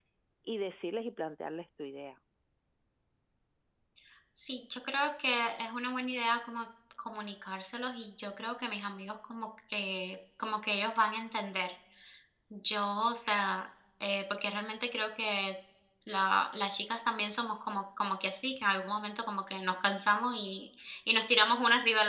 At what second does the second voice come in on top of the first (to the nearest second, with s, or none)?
none